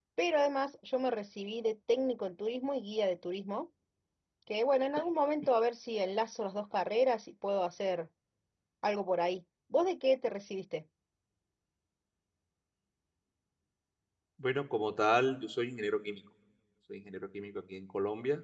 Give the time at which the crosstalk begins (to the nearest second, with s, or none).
none